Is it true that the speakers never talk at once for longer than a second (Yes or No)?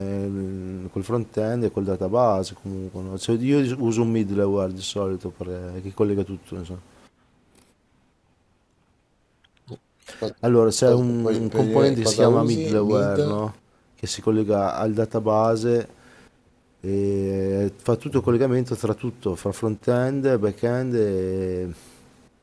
No